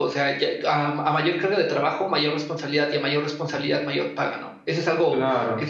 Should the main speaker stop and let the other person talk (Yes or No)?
No